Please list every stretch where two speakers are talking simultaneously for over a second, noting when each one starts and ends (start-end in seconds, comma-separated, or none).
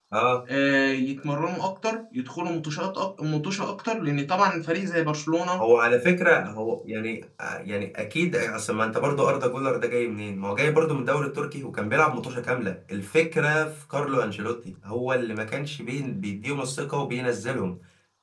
none